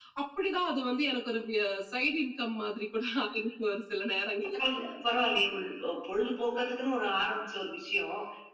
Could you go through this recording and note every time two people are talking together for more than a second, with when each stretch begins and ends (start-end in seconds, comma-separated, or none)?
none